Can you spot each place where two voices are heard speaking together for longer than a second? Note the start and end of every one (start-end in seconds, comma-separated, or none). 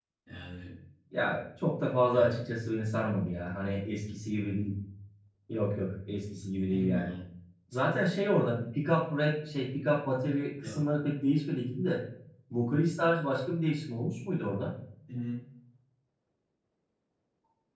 none